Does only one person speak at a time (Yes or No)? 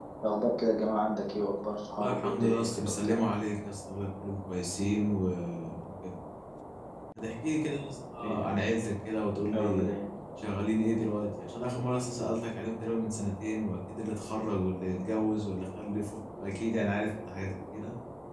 No